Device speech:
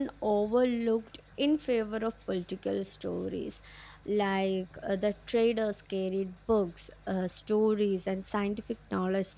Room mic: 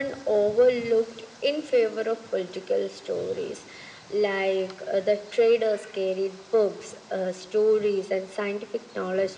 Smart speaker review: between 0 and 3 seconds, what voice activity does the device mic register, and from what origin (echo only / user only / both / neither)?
echo only